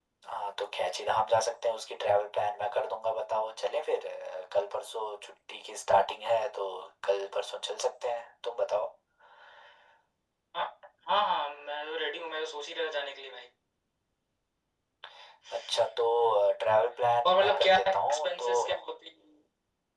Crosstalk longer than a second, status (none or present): present